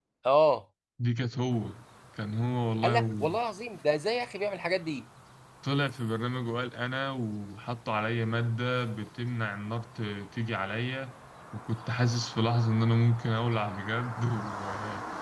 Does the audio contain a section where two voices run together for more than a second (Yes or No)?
No